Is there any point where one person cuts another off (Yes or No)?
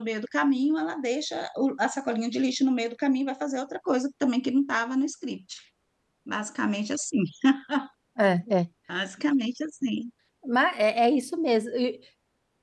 No